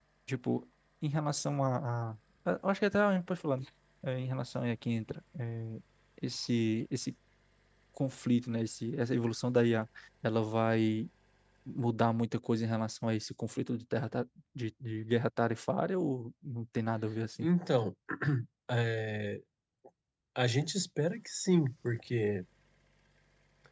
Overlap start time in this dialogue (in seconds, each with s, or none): none